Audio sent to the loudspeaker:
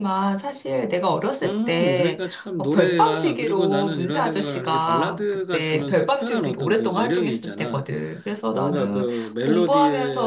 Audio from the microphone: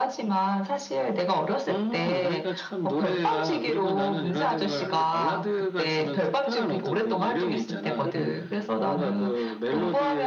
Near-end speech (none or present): present